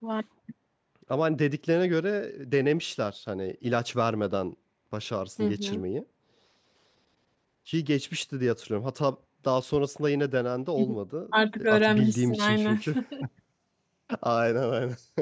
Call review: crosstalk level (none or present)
present